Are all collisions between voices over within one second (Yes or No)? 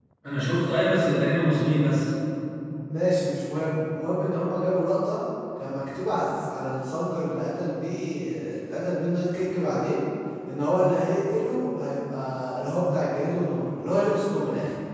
Yes